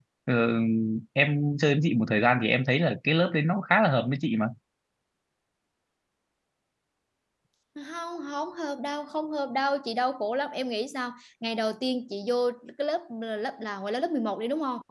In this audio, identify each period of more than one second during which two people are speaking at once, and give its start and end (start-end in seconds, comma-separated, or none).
none